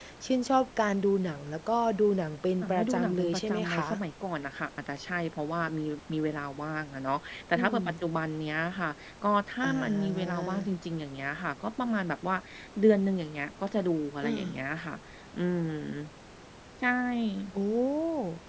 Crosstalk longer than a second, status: present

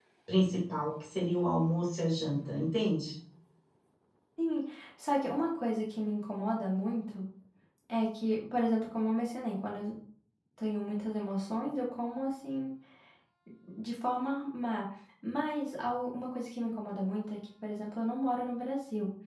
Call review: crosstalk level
none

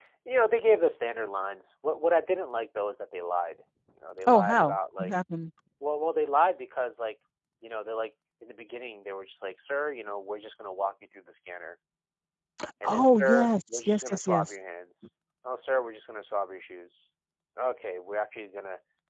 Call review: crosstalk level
present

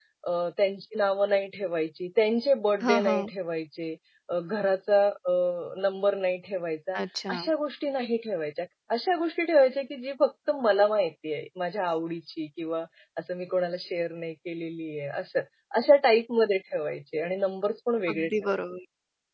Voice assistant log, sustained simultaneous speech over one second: none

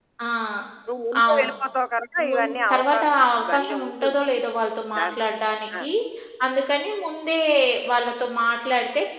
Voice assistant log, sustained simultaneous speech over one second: present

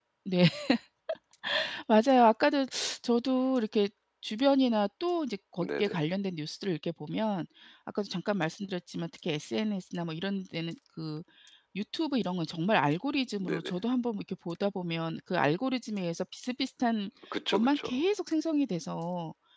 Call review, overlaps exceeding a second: none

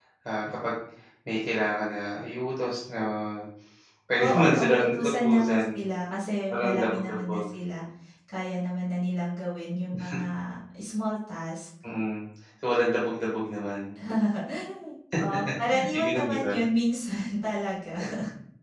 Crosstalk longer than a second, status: present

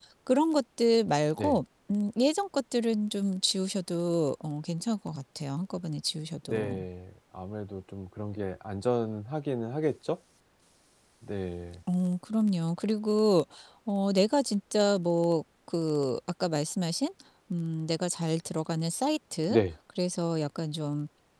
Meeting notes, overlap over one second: none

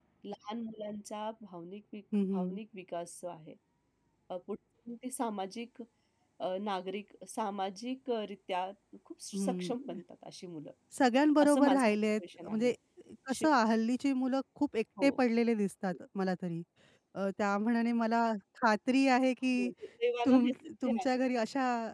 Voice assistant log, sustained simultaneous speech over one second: present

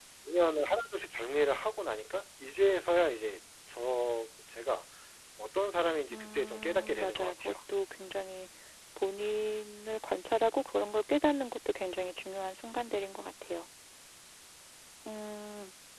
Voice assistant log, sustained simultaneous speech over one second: present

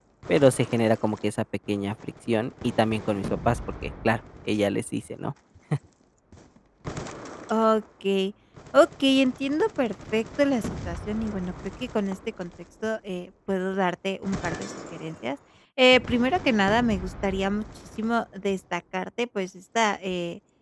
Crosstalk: none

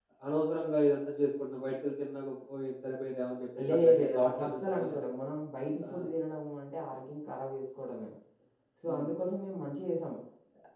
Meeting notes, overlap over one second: present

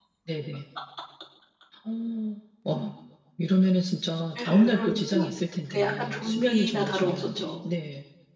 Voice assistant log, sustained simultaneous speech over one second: present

